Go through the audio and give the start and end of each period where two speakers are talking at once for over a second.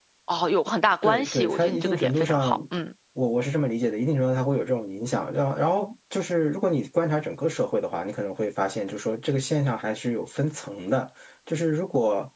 1.0-2.5

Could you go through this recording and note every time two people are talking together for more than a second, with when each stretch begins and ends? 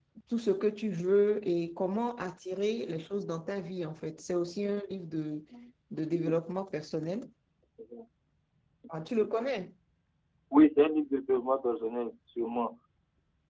none

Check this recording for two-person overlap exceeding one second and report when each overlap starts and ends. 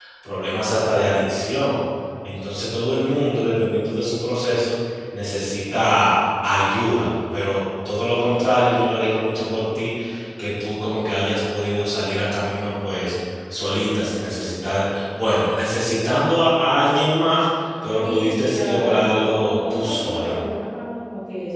18.0-20.4

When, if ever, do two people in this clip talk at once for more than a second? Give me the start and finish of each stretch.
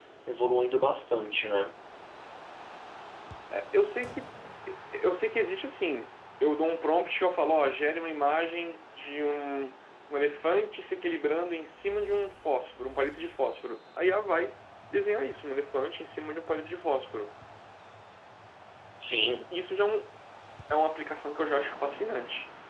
none

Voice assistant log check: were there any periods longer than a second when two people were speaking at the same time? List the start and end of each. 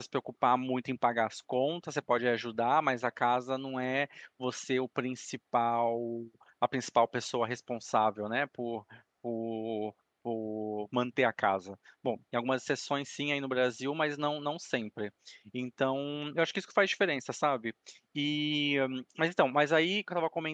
none

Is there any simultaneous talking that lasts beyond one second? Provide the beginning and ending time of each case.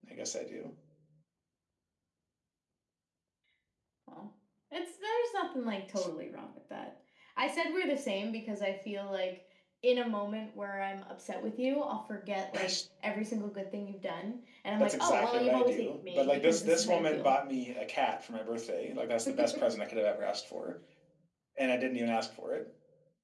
14.8-17.3

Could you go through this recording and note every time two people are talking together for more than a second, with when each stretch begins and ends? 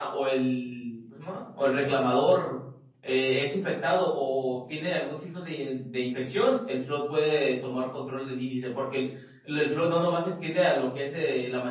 none

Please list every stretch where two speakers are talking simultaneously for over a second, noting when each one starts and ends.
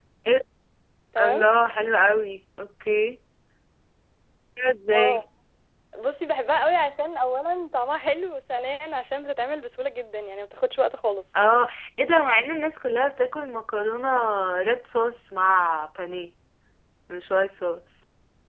none

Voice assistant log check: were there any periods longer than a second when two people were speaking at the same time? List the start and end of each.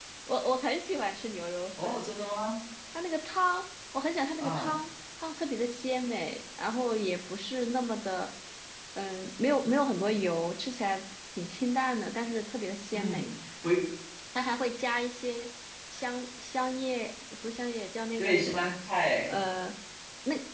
none

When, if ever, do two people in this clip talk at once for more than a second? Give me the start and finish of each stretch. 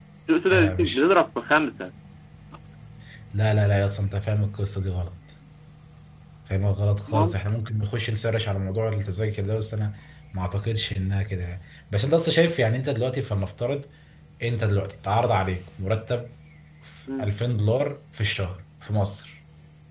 none

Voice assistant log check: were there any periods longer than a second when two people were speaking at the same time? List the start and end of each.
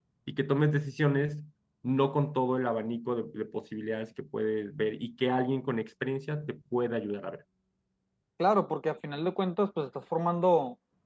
none

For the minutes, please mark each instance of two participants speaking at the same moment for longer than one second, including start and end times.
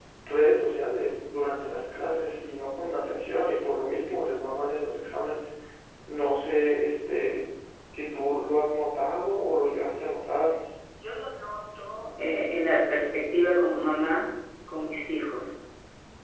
none

